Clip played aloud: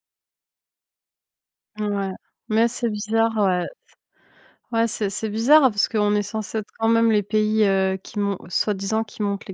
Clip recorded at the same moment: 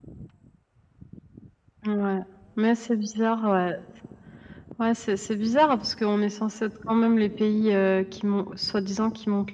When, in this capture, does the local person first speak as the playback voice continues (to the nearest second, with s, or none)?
none